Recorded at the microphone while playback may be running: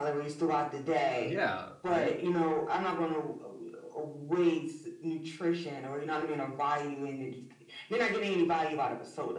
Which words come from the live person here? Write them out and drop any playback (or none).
yeah right